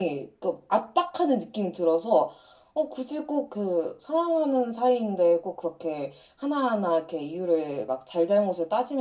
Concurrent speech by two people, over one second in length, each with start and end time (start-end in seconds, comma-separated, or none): none